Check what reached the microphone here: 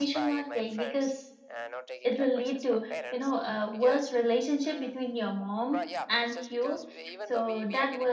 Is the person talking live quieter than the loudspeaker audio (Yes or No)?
No